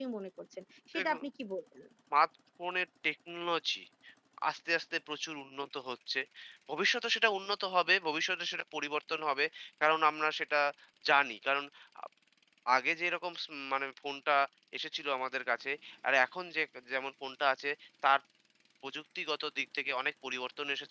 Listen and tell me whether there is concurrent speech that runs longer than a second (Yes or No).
No